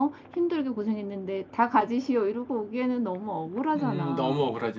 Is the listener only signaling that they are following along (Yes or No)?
No